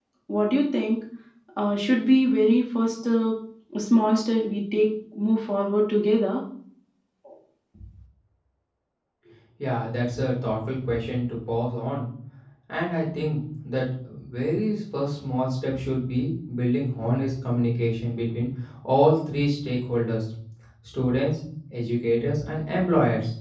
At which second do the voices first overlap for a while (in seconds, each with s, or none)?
none